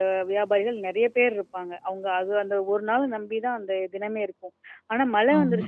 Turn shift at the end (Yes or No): No